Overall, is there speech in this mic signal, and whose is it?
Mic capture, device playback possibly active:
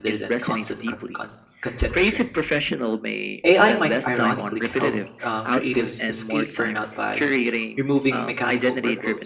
both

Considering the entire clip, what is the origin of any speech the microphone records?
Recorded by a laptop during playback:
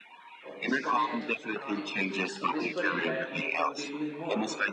both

